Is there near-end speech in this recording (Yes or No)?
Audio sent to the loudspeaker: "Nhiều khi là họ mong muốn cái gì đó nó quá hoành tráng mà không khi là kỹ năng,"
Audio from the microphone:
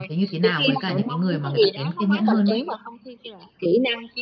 Yes